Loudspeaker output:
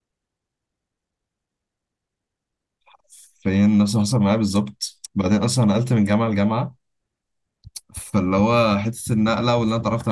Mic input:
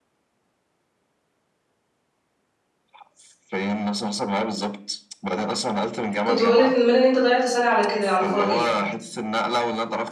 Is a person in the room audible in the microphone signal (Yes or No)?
Yes